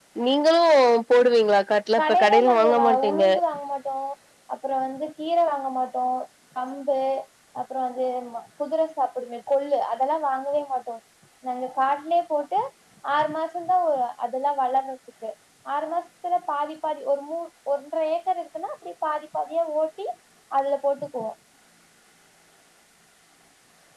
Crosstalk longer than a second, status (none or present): present